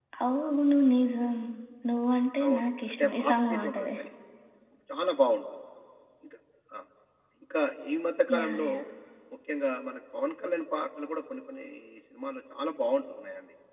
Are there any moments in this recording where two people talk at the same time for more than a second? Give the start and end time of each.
2.5-4.0

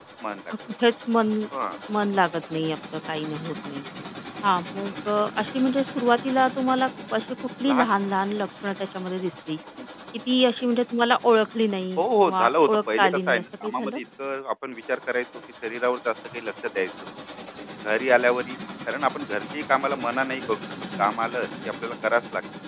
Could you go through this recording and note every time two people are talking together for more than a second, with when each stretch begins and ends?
12.0-14.0

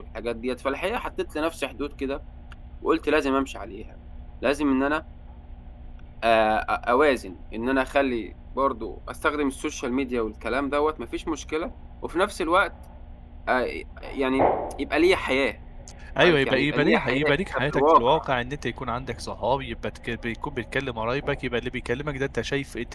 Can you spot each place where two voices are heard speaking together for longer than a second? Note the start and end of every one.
16.2-18.2

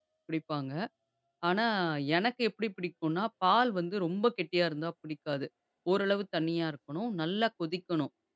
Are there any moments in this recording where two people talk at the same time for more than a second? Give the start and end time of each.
none

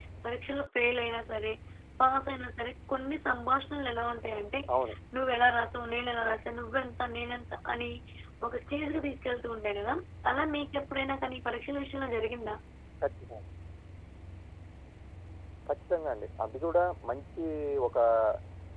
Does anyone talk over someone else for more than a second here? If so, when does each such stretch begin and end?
none

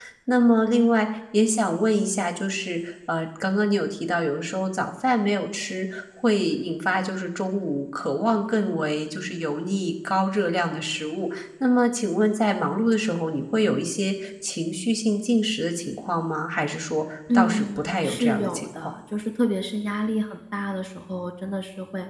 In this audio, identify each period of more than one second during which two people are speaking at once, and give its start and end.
17.3-18.9

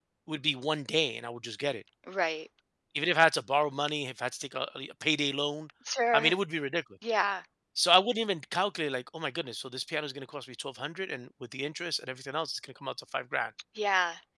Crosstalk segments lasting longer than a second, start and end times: none

